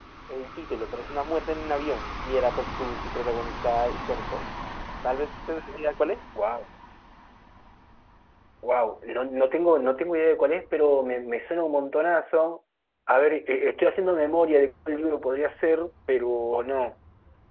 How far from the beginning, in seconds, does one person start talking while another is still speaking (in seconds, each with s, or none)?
none